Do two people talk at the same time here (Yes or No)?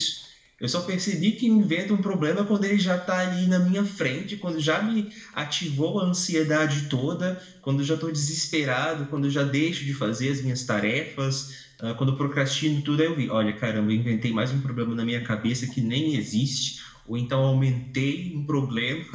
No